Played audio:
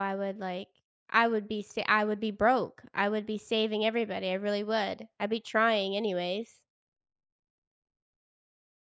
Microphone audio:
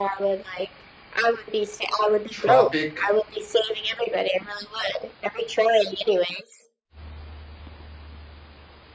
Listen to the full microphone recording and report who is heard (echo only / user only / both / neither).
both